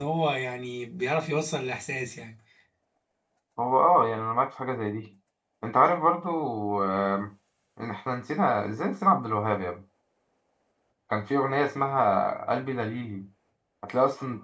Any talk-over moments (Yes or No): No